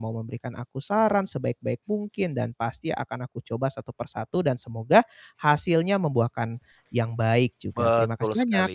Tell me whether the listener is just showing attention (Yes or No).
No